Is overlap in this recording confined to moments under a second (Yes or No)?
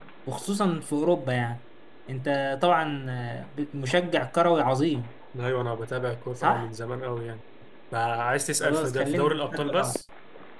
No